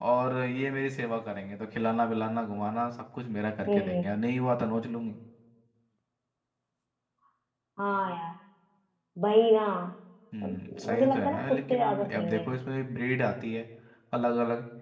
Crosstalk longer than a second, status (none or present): present